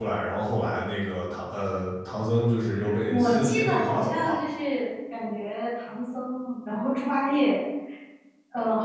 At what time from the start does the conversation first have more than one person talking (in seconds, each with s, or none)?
3.1 s